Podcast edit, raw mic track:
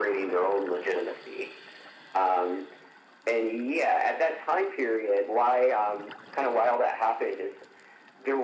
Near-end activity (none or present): none